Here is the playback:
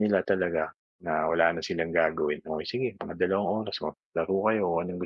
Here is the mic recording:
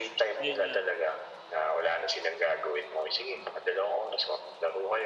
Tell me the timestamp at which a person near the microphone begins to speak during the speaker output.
0.4 s

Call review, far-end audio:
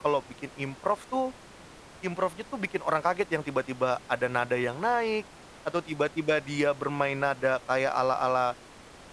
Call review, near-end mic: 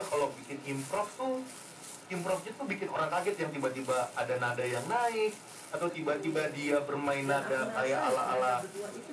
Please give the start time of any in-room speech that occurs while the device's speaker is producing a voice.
5.9 s

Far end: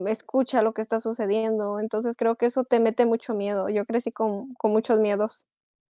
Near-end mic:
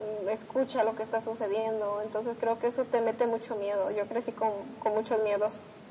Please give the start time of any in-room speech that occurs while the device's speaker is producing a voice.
none

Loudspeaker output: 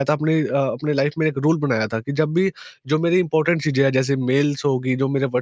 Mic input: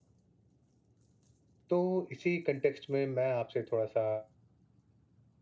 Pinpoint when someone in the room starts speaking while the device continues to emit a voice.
1.7 s

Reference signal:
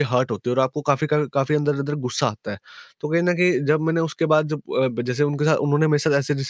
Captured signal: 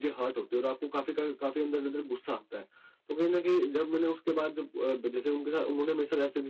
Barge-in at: none

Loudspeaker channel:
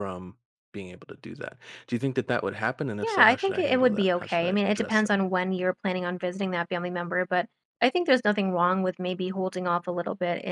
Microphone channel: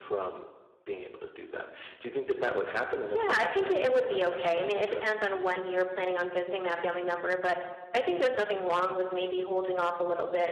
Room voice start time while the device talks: none

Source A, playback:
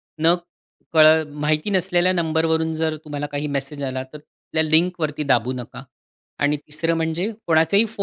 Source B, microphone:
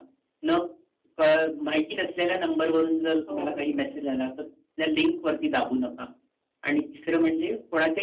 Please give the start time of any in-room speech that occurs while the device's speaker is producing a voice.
3.3 s

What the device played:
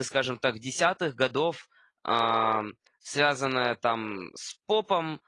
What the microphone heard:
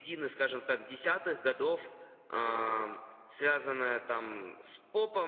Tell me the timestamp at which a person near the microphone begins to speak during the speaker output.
none

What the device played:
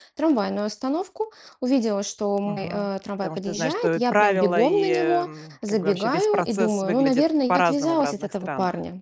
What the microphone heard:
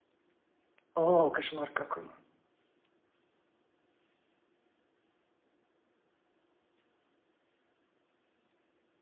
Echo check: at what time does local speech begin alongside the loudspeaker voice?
1.0 s

